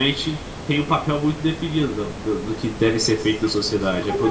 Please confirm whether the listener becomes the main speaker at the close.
Yes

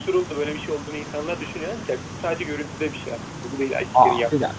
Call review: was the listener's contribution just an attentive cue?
No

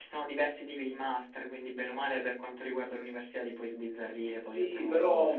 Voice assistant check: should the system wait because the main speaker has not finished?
No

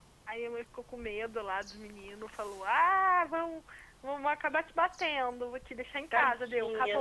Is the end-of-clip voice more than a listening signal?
Yes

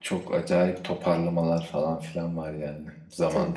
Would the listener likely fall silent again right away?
No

